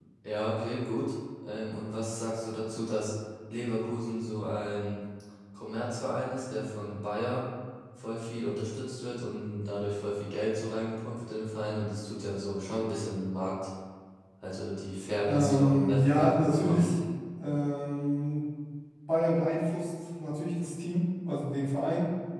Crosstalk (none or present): present